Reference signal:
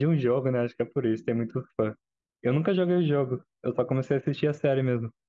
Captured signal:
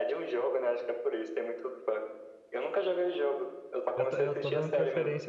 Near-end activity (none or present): present